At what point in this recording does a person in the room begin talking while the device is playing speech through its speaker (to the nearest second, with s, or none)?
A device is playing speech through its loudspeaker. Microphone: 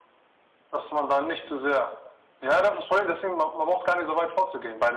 none